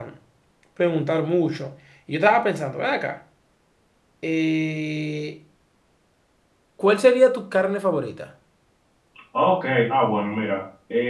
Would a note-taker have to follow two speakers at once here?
No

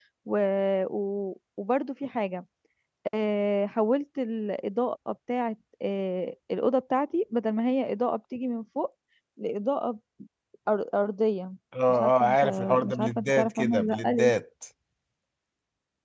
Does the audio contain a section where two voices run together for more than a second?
Yes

